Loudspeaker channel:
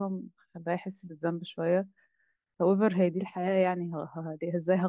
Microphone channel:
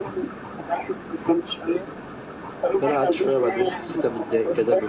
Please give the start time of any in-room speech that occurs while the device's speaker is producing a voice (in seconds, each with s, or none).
2.8 s